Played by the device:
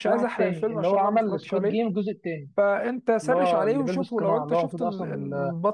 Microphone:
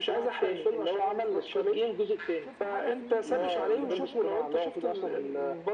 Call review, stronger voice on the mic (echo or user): echo